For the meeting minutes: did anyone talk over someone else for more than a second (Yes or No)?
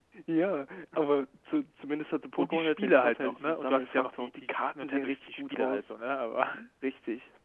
Yes